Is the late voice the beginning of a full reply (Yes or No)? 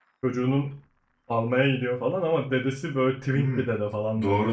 Yes